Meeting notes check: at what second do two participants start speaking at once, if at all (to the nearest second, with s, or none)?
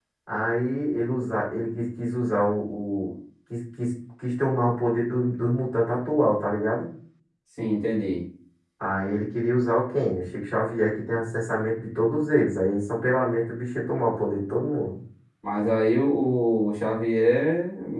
none